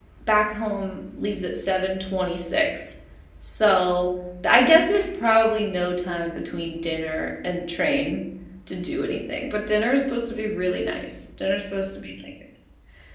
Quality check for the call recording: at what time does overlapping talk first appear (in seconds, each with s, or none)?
none